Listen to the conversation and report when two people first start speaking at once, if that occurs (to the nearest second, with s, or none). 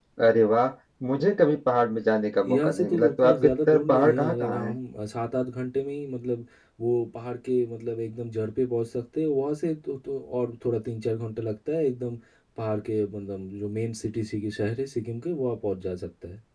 2 s